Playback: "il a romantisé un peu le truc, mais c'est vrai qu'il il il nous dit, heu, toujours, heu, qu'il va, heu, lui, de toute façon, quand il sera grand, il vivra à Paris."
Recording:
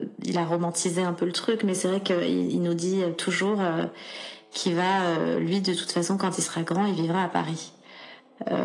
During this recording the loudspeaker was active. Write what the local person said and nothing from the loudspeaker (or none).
none